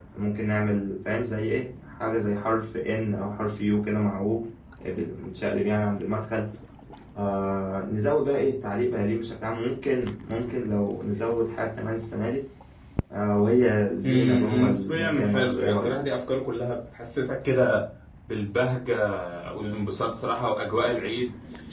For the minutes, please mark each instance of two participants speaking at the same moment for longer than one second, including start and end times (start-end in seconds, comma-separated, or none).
14.0-16.0